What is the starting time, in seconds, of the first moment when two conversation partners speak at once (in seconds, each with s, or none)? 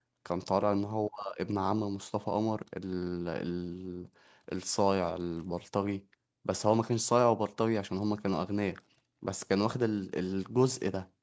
none